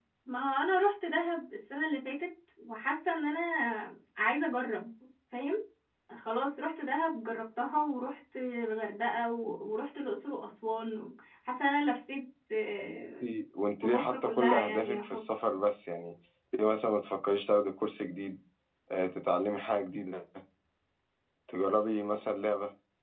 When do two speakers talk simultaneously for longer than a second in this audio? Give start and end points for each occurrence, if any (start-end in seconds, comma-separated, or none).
13.8-15.2